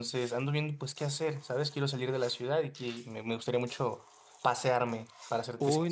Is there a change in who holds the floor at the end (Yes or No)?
Yes